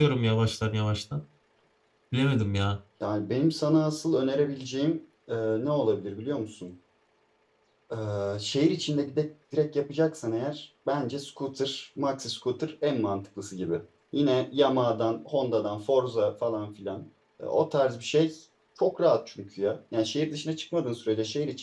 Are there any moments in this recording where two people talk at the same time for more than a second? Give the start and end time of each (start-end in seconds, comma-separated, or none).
none